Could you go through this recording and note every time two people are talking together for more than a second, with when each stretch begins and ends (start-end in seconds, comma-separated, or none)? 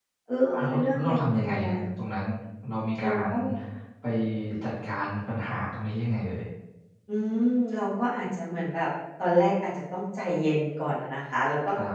0.5-1.8